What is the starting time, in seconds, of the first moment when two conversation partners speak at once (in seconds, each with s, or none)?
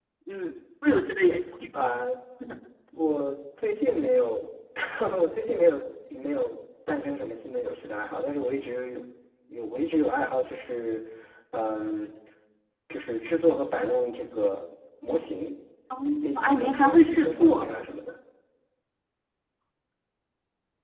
16.4 s